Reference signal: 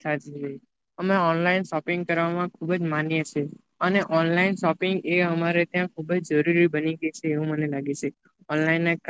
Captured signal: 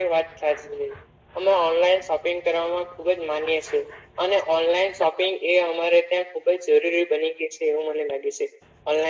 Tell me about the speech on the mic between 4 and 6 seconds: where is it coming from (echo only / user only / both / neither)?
echo only